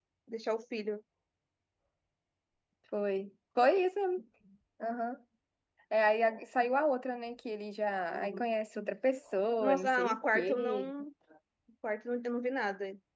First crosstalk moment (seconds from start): 10 s

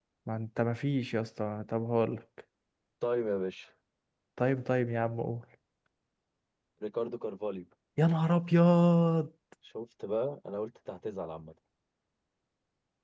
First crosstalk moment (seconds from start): none

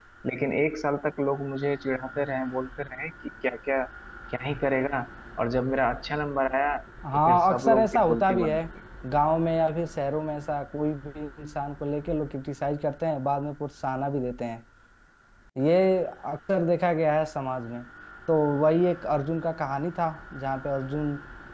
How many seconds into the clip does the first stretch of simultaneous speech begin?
7 s

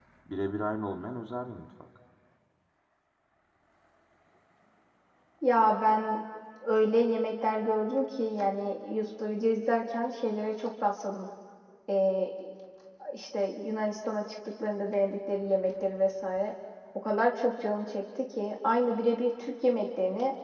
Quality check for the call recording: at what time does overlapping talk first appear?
none

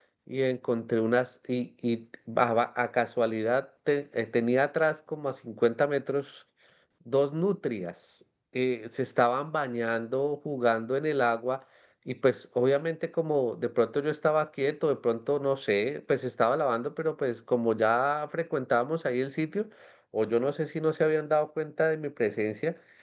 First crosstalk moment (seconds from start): none

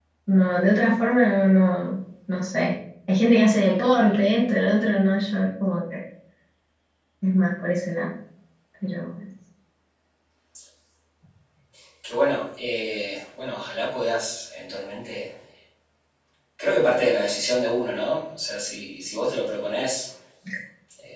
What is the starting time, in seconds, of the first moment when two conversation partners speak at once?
none

